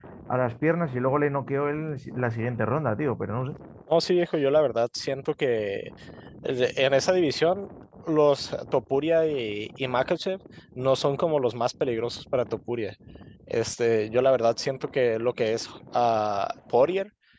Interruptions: none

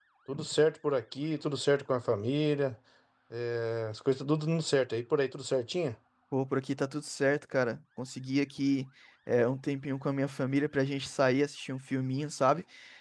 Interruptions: none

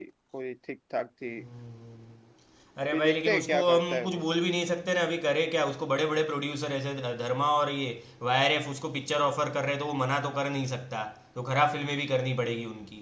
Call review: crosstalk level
present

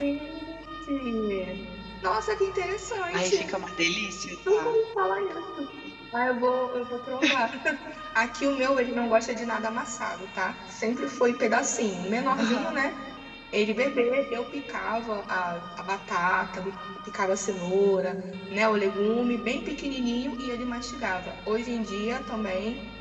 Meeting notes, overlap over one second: none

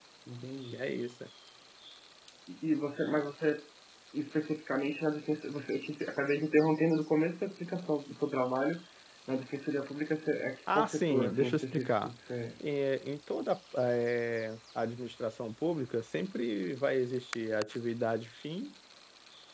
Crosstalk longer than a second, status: present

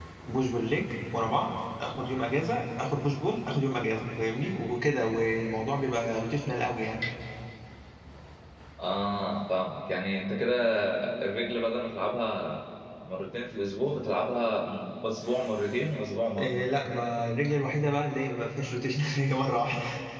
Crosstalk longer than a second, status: none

